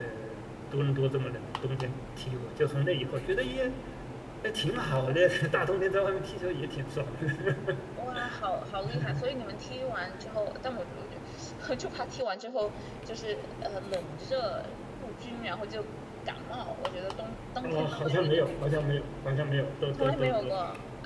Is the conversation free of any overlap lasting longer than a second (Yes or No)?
No